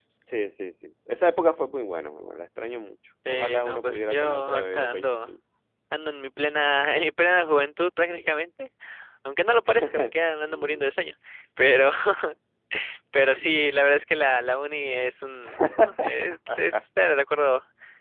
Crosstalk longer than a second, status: present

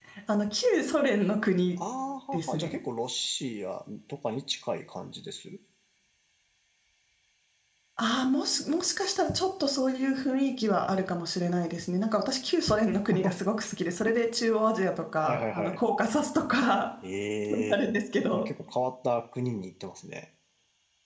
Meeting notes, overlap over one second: none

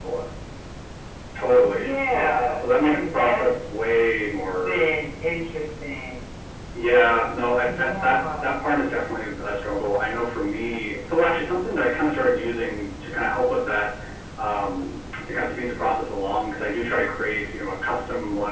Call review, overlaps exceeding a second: present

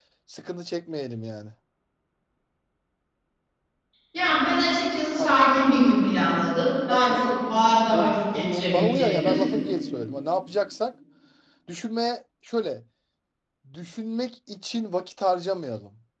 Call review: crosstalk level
present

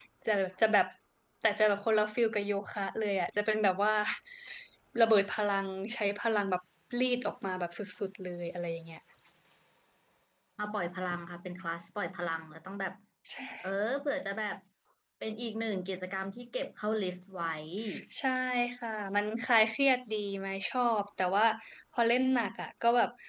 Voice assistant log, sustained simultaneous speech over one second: none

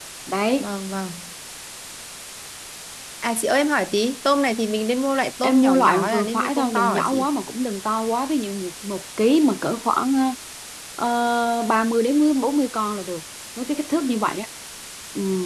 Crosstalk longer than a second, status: present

